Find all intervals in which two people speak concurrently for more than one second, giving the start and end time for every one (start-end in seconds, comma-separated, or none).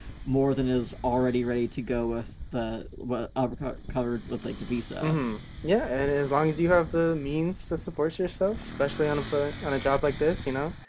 none